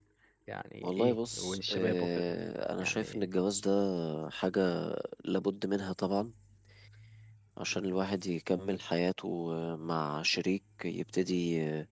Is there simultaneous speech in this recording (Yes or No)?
Yes